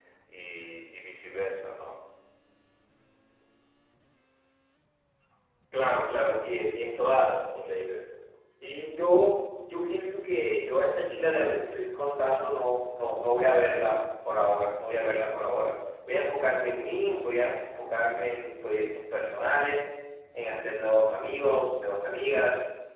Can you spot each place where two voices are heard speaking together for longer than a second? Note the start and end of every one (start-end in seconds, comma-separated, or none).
none